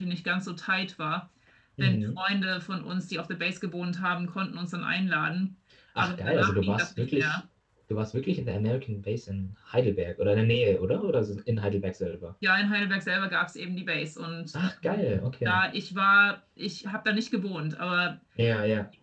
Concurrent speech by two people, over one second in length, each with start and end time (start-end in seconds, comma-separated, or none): 6.0-7.4